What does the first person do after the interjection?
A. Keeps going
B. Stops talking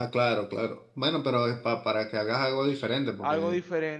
B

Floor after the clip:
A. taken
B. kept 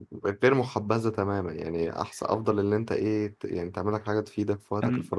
B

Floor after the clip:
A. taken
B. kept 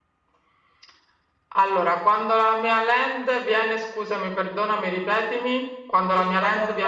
A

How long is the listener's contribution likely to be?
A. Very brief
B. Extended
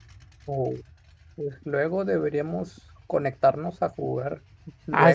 B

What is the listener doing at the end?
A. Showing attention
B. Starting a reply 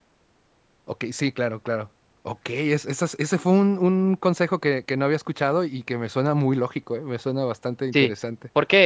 B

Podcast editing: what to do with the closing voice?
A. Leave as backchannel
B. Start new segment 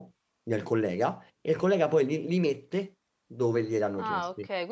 B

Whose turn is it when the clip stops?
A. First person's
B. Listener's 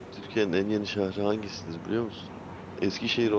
A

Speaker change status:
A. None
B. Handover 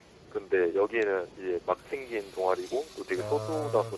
A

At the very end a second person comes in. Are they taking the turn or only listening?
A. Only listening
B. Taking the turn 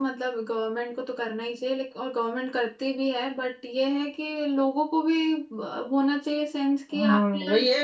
B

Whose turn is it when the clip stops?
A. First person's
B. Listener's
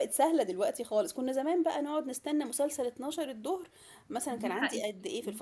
B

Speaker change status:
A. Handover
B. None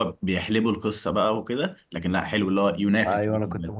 A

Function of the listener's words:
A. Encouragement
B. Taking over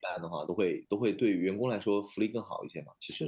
B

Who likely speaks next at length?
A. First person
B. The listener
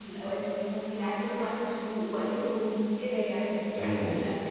B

